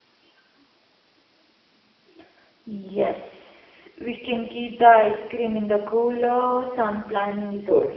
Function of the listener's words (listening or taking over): taking over